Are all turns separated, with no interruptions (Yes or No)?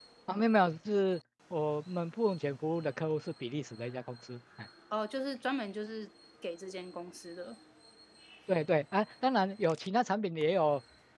Yes